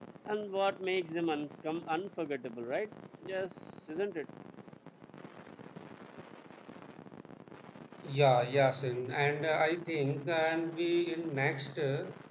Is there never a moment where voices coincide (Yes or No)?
Yes